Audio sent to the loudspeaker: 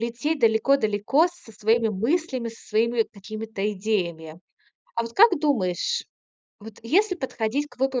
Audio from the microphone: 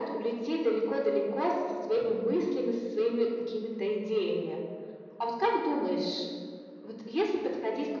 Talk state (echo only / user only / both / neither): echo only